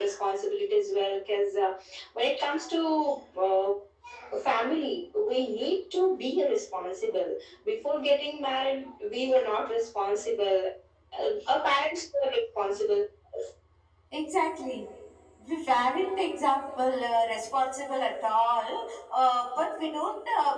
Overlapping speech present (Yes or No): No